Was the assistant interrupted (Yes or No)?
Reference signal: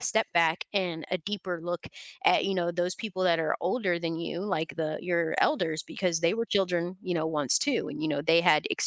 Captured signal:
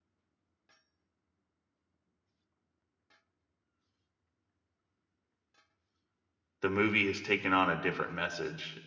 Yes